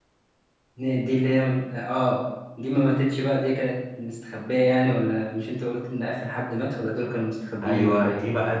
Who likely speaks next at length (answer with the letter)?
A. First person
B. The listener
B